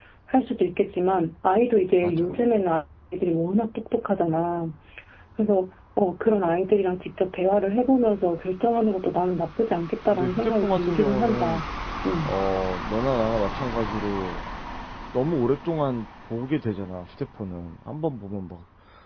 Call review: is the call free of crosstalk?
No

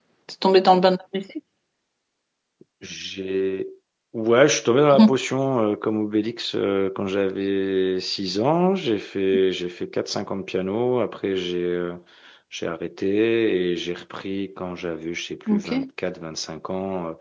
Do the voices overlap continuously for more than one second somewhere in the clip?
No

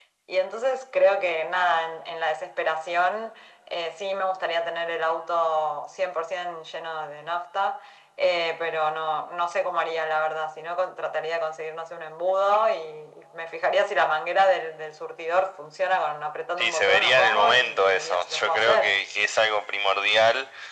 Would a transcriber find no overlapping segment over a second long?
No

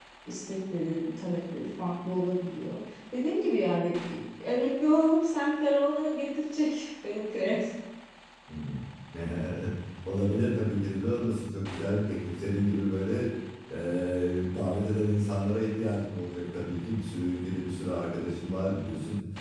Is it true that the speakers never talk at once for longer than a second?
Yes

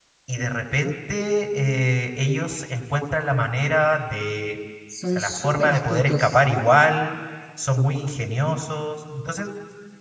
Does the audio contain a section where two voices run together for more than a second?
Yes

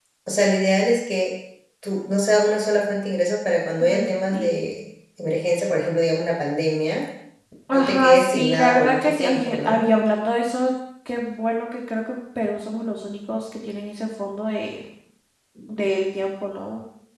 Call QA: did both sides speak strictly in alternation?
No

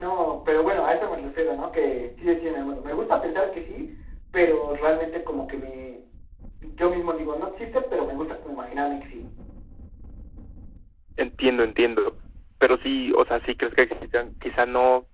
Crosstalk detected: No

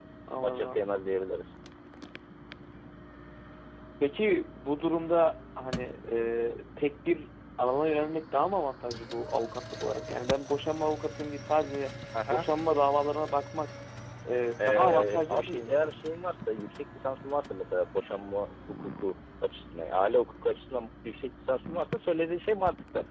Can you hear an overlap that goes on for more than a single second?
Yes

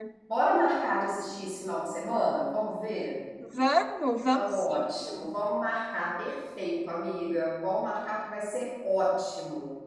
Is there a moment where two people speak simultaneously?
Yes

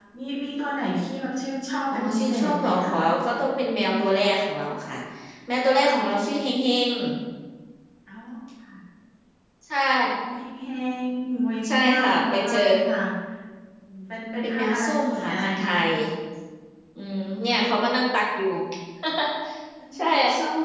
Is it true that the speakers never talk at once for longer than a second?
No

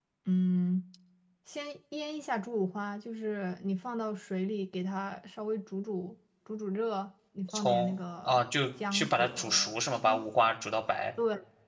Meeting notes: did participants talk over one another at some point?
Yes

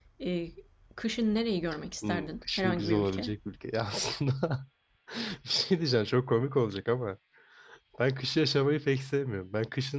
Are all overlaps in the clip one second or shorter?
No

